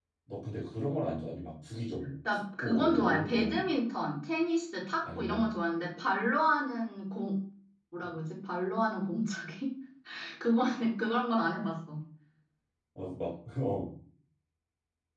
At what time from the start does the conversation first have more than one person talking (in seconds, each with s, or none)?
2.3 s